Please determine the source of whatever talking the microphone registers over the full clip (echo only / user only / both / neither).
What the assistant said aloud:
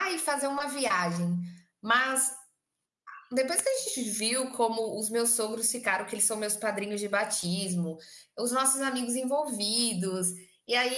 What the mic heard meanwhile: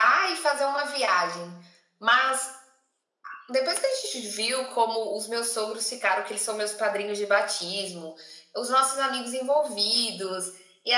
echo only